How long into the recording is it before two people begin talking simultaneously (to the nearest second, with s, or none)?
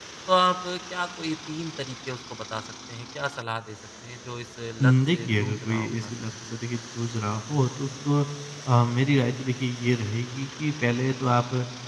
5 s